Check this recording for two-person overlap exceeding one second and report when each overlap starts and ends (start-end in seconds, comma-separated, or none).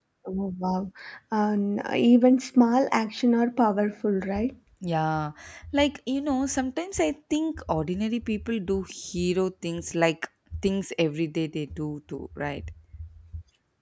none